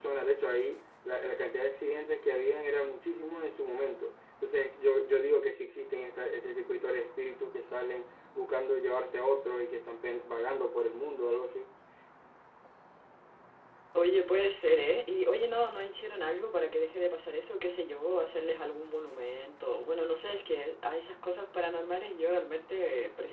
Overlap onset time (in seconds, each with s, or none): none